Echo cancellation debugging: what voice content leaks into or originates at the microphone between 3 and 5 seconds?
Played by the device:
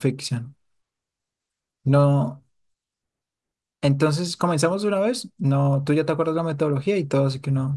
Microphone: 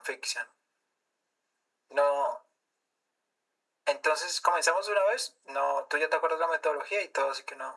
echo only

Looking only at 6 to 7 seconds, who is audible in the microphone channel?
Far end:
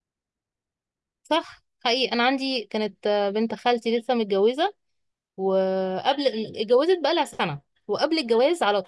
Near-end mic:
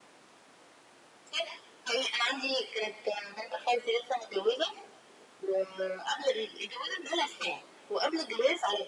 echo only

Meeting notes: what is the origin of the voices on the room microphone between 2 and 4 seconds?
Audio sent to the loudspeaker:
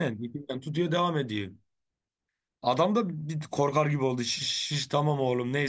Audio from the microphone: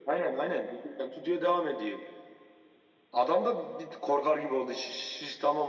echo only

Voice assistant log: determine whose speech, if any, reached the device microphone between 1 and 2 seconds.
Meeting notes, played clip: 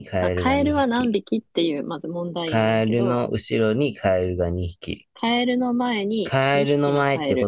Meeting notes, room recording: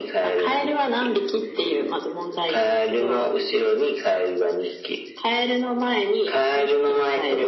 echo only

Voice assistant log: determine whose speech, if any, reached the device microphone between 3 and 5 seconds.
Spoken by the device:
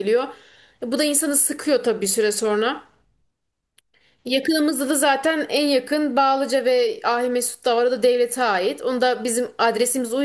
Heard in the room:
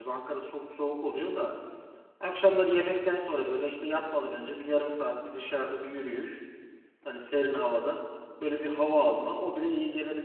user only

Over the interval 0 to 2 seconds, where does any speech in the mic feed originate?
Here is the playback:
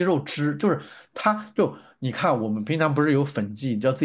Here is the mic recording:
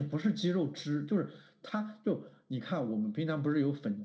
echo only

